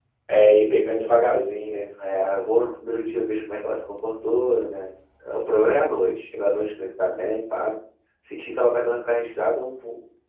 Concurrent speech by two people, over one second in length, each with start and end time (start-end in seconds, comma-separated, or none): none